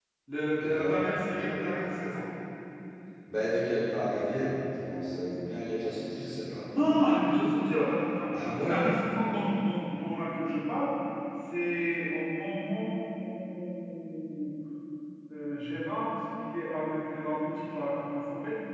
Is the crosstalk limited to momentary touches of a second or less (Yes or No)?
Yes